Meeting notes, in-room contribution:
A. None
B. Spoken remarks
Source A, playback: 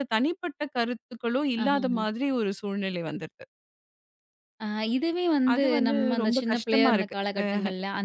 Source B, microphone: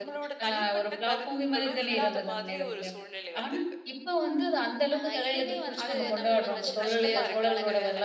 B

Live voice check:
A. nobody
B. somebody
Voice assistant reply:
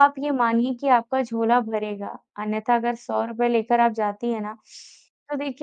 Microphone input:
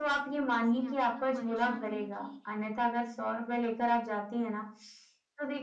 B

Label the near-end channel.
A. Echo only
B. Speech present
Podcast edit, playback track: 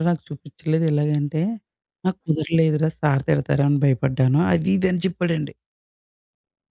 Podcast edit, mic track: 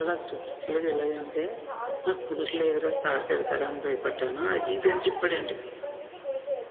B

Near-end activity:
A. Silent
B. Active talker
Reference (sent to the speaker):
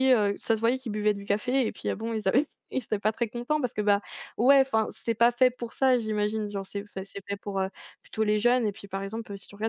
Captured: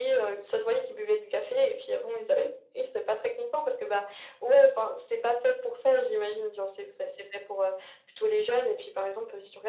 A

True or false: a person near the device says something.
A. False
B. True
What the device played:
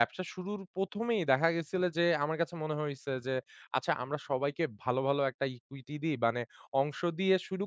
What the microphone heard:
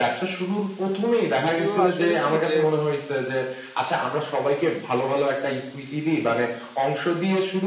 B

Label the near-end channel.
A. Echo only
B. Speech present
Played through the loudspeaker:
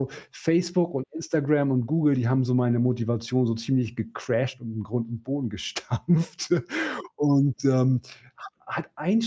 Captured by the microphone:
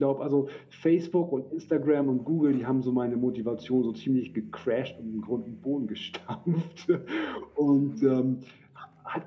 B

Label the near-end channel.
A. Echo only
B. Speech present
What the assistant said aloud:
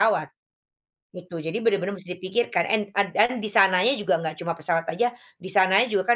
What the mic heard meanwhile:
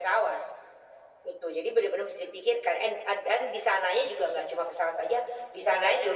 A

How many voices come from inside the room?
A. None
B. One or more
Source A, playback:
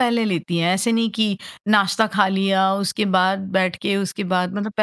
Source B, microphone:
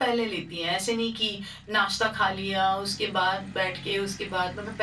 A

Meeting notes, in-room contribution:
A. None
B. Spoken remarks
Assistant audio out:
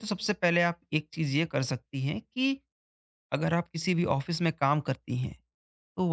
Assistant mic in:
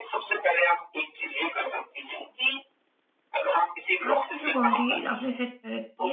B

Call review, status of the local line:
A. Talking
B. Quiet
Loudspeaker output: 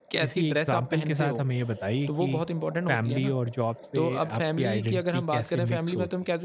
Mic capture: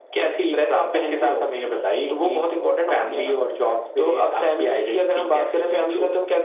B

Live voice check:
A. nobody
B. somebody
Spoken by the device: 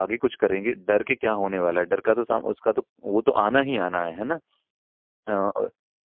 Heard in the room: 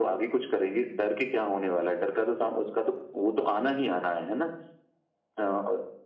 A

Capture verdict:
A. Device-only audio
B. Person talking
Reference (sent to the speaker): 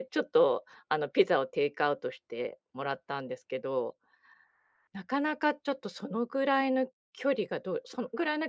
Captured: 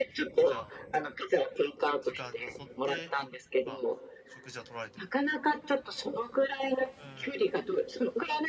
B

